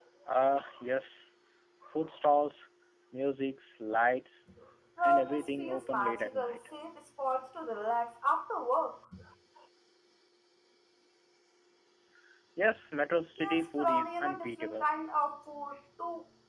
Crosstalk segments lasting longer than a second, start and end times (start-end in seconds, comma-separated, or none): 5.0-6.5, 13.4-14.9